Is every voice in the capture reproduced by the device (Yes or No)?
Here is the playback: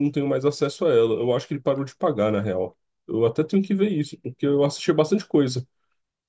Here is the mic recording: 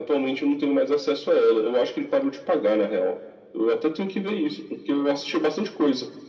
Yes